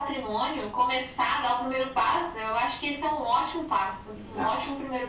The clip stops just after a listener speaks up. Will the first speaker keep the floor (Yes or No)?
No